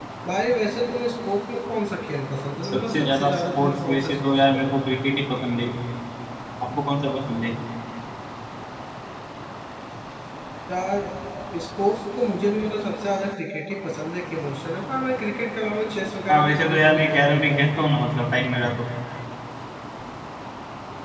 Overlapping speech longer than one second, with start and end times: 2.6-4.8, 16.3-17.9

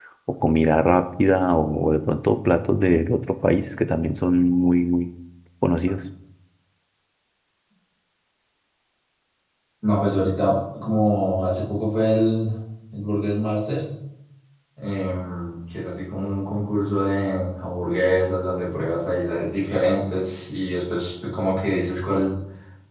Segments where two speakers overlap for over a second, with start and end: none

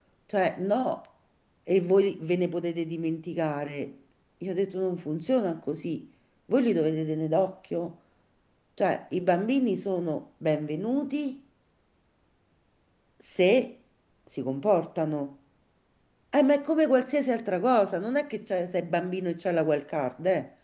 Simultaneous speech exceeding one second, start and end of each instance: none

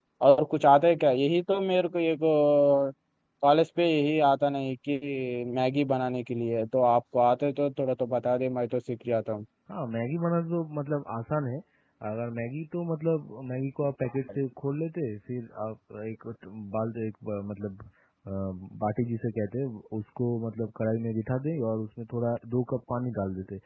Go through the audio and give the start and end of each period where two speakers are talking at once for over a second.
none

